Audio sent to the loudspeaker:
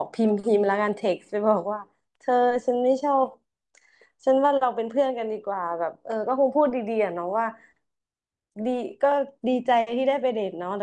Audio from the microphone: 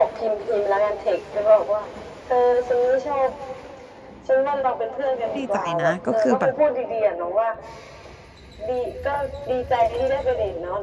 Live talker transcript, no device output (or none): ดีใจนะก็คือแบบ